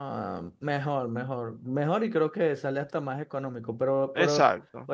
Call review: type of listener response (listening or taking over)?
listening